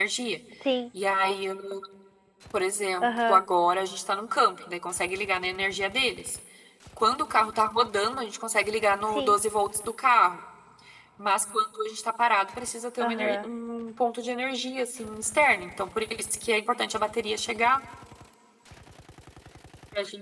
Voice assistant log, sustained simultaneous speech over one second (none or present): none